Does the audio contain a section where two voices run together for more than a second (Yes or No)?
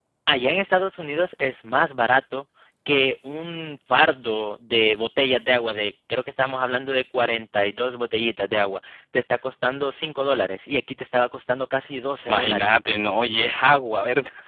No